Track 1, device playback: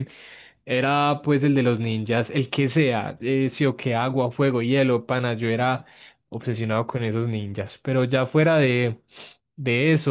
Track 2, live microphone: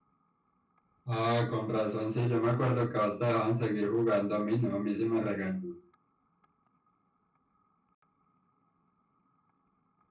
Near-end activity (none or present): present